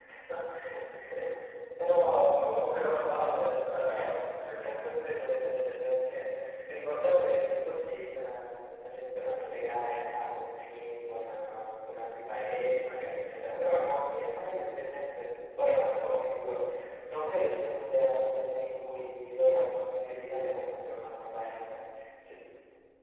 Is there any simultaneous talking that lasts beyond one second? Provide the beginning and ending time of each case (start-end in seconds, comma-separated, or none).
2.8-4.8